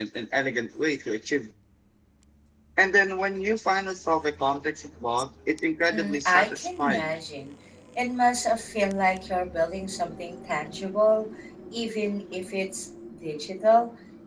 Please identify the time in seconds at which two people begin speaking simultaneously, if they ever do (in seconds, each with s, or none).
5.9 s